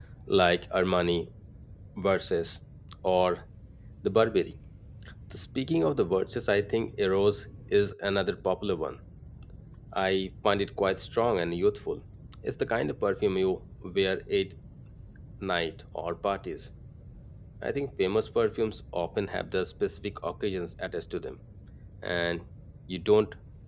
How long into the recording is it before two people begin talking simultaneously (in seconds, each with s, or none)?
none